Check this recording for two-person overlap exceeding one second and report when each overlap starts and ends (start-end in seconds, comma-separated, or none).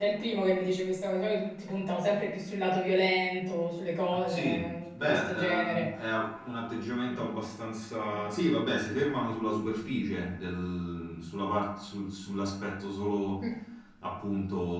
4.3-5.9